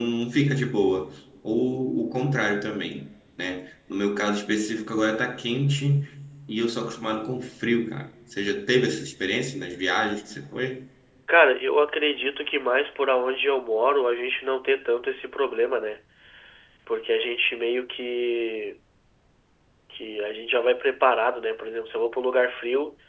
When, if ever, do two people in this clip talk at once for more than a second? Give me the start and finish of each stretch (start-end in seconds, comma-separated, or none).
none